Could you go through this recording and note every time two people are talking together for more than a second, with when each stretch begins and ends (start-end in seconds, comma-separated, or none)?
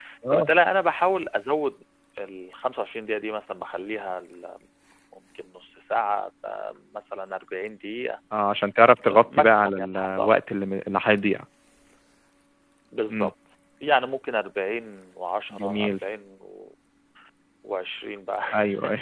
9.1-10.4